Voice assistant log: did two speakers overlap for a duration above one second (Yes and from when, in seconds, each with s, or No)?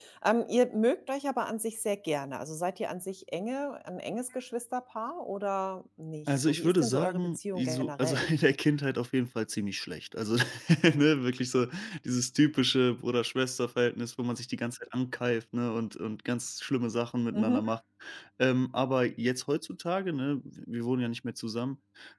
Yes, from 6.3 s